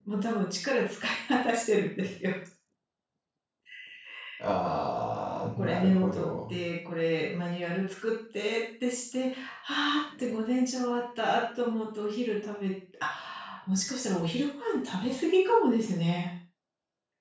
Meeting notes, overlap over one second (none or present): present